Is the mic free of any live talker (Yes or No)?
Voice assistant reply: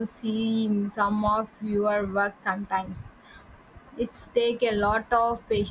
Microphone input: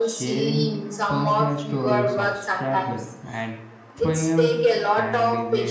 No